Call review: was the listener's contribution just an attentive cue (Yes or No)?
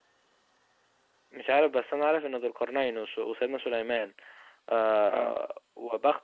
Yes